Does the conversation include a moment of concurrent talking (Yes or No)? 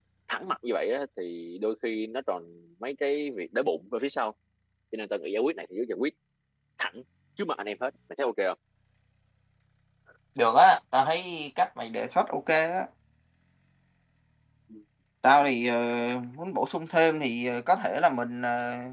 No